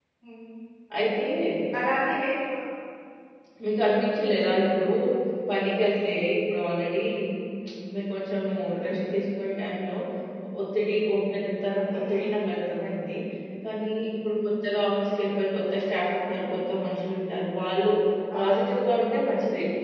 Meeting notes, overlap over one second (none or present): none